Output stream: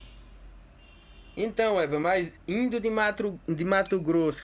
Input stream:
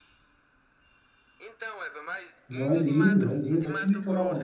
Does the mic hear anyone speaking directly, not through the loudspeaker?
Yes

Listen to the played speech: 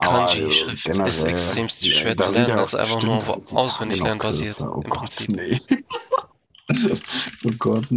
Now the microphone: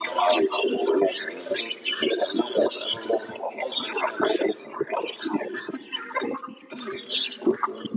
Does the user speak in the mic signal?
No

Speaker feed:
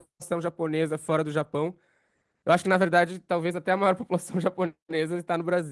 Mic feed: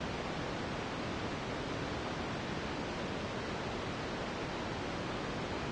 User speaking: No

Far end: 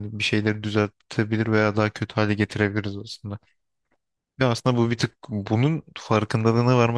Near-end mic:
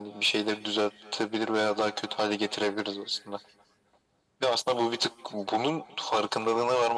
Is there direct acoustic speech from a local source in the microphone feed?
No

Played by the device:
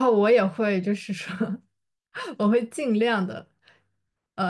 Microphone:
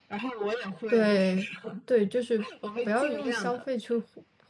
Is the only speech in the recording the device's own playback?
No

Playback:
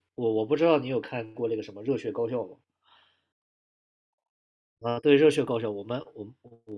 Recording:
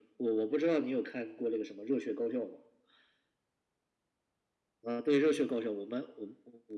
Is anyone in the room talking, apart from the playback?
No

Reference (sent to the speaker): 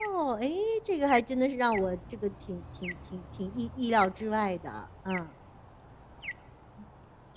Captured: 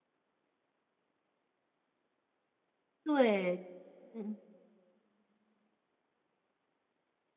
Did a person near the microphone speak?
Yes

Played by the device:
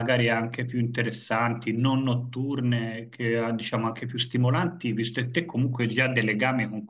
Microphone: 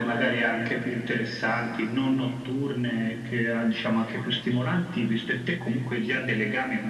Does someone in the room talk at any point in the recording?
No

